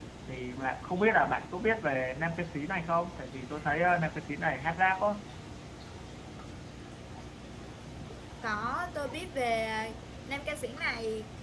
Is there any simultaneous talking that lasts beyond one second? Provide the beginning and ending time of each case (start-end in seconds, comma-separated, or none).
none